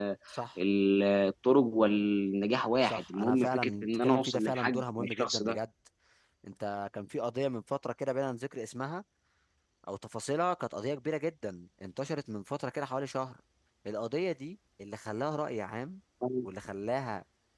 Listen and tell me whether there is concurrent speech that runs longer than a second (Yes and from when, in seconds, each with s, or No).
Yes, from 2.8 s